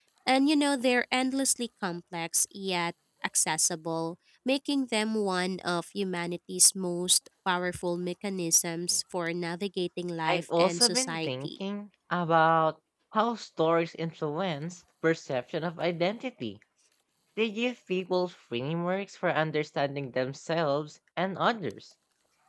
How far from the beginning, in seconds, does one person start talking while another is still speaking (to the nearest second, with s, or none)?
10 s